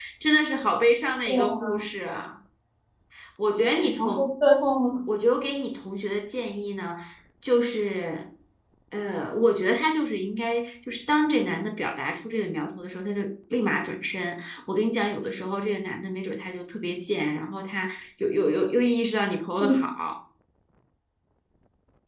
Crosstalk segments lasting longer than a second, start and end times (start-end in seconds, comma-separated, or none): none